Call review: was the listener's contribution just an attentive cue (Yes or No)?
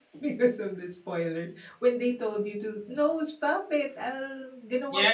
No